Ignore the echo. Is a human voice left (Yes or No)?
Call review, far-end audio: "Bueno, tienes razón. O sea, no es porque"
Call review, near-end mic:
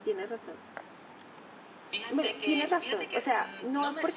Yes